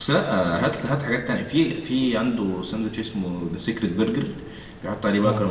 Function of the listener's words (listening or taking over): listening